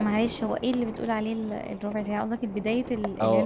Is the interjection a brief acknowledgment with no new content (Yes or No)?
No